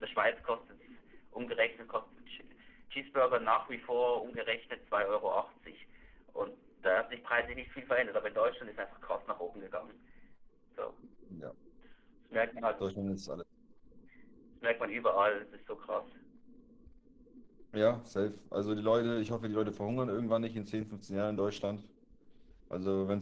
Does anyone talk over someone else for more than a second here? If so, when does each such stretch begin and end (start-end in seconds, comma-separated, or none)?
none